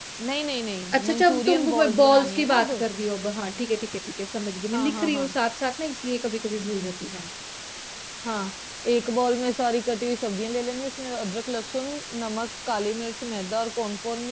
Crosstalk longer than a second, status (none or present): present